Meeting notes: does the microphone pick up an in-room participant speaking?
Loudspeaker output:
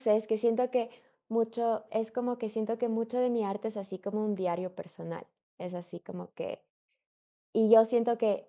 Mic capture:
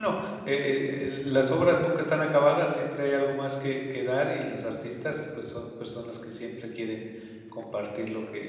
Yes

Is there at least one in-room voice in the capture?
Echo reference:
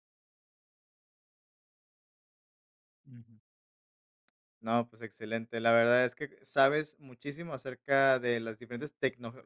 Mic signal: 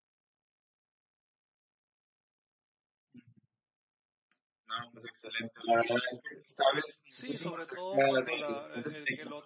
Yes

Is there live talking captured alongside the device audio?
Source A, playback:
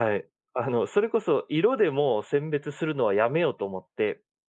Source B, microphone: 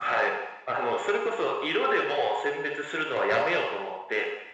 No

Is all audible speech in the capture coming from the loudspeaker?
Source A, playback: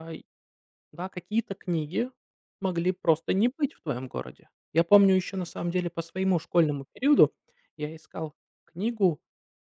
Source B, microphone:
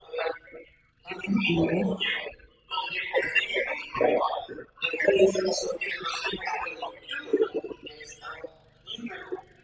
No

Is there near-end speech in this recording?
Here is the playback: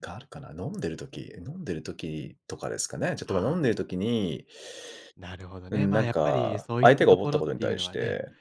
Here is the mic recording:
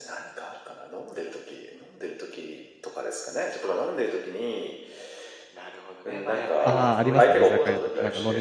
Yes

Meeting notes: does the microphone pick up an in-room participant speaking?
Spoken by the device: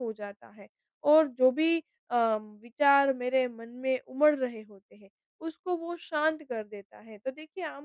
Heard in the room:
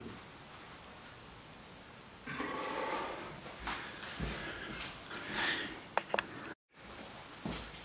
No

